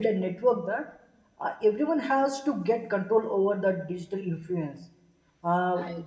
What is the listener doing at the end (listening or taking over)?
listening